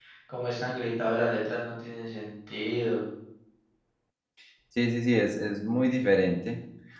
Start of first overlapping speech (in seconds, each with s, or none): none